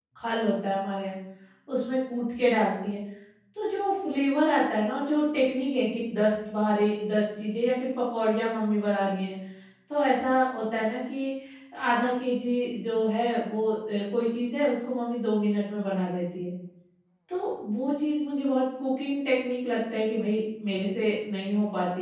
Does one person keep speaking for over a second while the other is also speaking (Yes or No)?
No